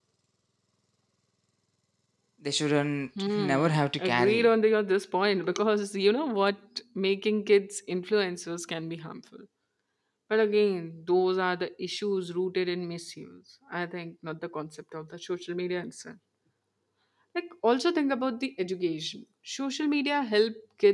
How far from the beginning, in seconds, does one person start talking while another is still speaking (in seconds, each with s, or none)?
3.2 s